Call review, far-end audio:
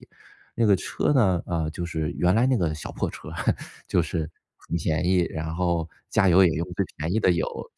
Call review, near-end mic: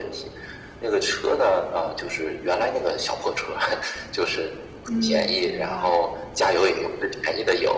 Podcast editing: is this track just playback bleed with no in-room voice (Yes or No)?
No